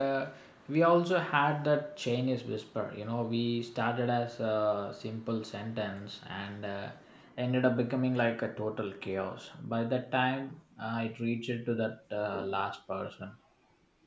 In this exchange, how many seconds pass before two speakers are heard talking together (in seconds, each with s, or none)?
none